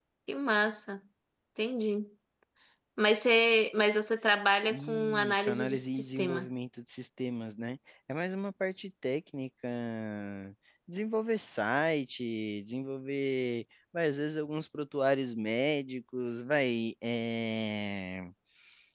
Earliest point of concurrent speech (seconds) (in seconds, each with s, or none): 4.7 s